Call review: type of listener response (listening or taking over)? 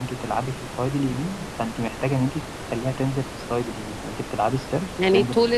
taking over